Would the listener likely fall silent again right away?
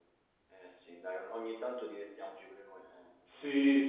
No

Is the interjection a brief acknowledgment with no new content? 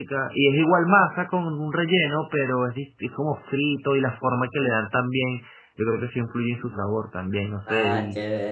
No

